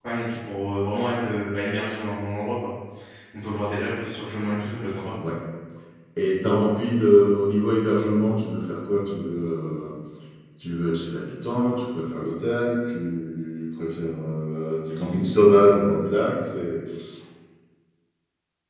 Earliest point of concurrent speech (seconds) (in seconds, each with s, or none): none